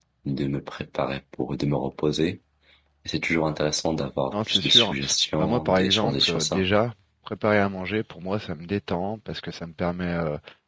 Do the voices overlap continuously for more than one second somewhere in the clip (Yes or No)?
Yes